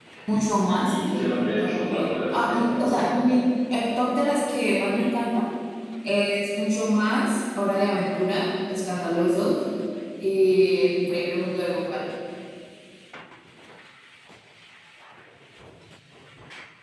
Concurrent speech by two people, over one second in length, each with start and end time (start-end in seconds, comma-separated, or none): 0.8-3.2